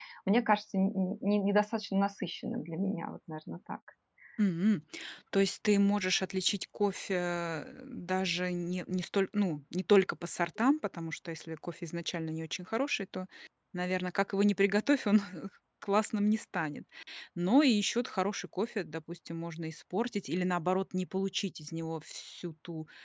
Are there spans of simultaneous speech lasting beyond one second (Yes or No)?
No